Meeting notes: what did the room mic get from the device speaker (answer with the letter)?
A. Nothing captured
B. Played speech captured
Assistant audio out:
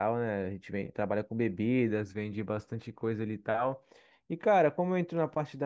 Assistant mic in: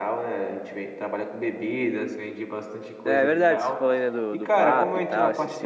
B